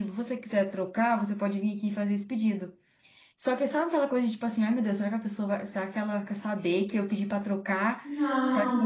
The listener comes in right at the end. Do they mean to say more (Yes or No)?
No